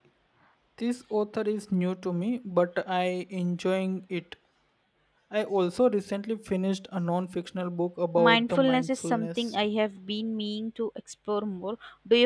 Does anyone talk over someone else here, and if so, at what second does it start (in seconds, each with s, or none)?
8.2 s